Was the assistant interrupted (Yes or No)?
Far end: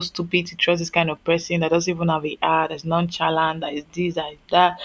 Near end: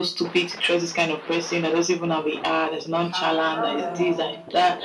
Yes